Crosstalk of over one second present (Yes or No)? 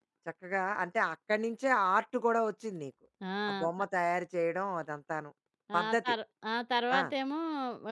No